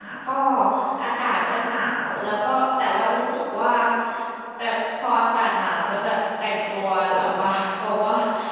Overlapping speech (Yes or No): No